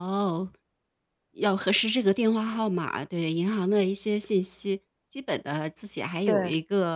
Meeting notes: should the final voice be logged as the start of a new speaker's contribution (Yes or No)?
No